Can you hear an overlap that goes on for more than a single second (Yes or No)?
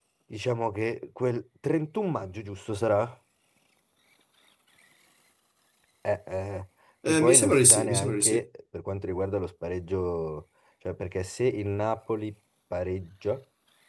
Yes